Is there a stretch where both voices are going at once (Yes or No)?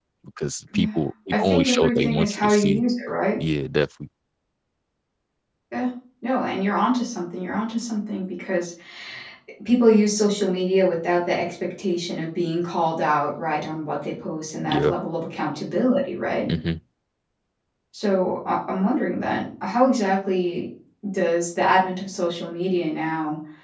Yes